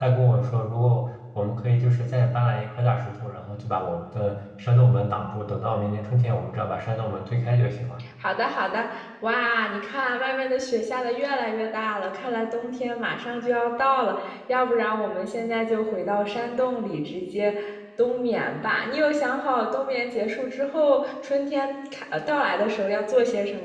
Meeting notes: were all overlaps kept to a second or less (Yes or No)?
Yes